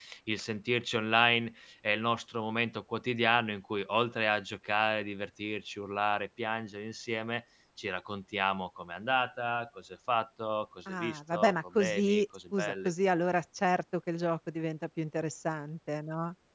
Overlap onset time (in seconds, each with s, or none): 10.9 s